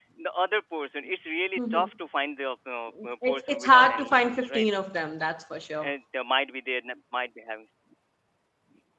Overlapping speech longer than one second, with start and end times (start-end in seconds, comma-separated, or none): 3.3-4.6